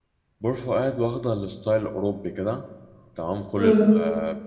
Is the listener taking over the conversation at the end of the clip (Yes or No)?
No